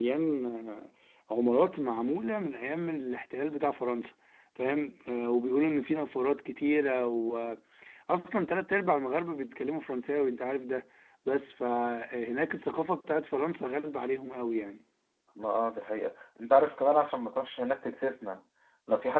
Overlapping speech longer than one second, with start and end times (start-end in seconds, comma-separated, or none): none